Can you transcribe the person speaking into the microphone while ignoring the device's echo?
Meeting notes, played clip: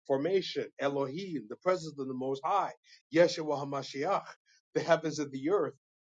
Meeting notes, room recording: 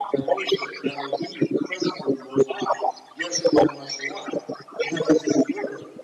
none

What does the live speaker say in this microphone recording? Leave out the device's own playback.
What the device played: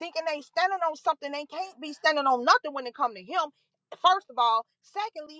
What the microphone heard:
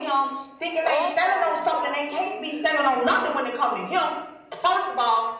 Oh my gosh, it is. You're right.

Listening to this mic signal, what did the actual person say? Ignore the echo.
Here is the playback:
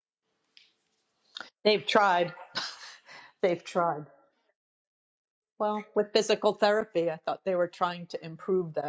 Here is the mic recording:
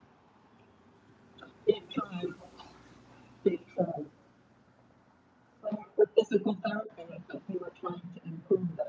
none

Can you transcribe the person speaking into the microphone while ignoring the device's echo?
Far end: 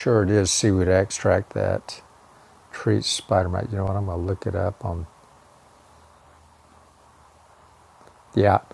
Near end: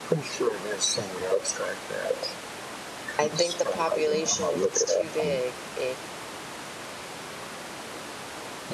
I think the population, if it's too big, it

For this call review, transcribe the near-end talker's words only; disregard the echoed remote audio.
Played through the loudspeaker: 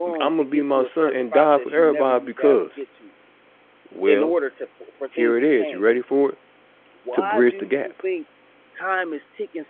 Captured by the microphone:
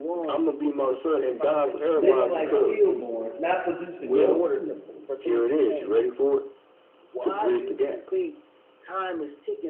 living like stillborns, not producing no fruit,

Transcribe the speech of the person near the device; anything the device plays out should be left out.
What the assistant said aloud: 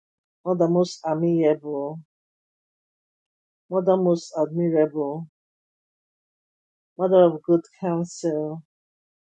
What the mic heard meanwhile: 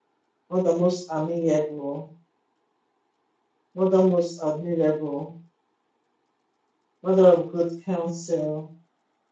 none

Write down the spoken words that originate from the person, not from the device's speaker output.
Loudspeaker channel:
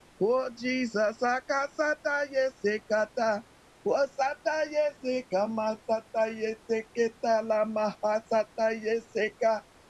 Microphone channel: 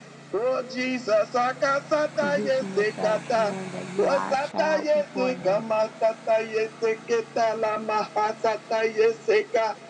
Position yourself knowing that you are a child before Him

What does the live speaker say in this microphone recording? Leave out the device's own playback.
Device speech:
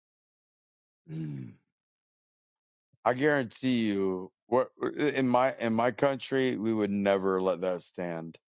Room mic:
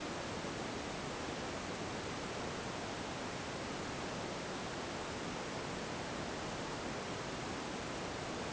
none

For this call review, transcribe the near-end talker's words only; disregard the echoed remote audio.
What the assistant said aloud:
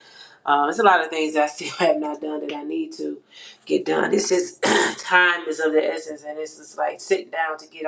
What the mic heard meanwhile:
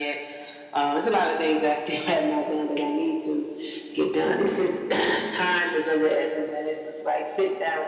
none

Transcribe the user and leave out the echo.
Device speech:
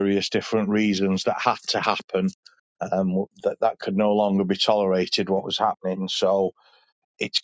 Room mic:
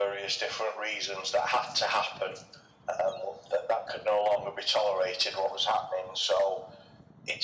none

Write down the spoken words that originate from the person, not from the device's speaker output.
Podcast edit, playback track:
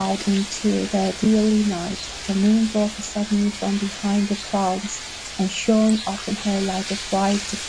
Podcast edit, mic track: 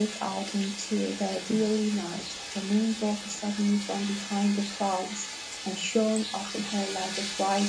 none

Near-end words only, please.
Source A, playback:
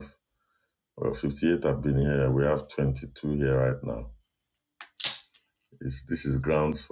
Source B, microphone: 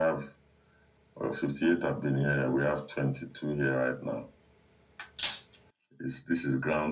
none

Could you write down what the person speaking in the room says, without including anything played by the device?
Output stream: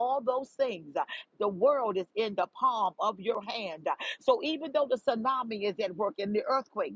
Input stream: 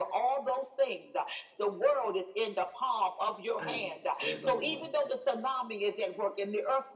and forevermore.

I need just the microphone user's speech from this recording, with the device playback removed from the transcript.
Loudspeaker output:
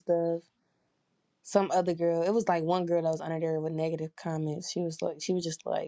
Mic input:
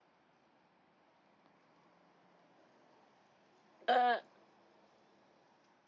Uh,

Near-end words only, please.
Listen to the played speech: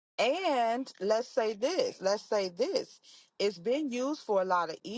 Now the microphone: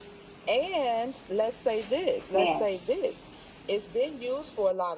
man,

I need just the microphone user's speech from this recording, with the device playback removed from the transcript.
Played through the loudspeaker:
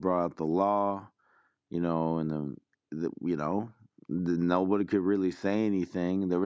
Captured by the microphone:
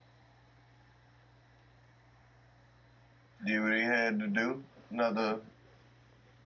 did what he had to do. Another,

